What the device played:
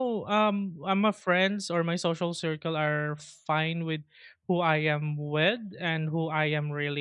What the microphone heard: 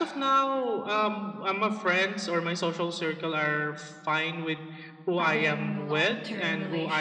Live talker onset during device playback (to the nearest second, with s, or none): 5 s